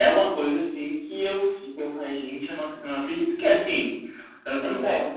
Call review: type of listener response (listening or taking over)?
listening